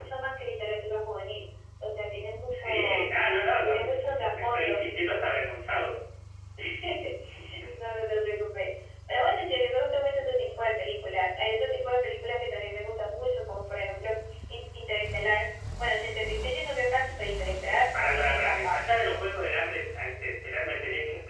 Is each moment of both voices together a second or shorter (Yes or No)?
No